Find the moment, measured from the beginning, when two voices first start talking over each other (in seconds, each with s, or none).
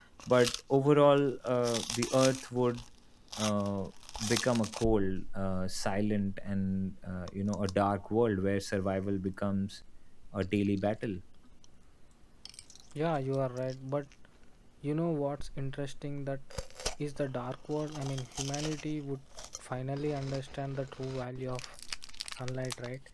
none